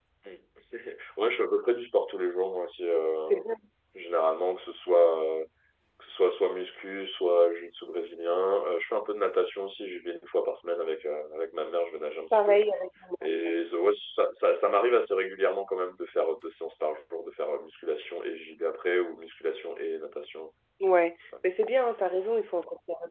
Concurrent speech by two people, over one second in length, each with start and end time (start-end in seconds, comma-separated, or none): none